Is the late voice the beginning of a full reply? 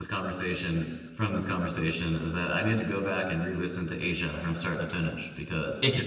Yes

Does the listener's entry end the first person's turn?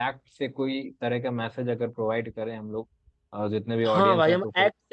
Yes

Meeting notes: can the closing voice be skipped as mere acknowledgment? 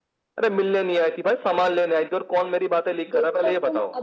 No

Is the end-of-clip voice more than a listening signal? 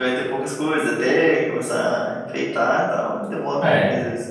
Yes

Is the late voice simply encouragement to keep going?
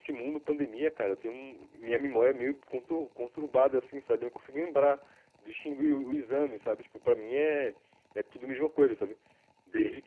Yes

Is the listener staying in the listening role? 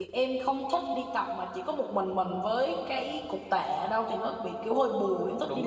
No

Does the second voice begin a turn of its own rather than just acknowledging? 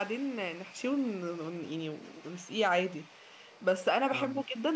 No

